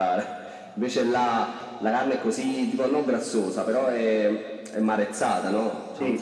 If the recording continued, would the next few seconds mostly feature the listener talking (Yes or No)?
No